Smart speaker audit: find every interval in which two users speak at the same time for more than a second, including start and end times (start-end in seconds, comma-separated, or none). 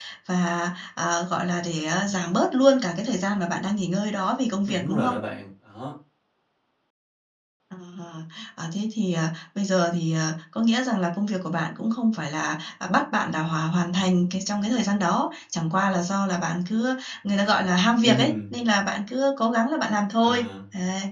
none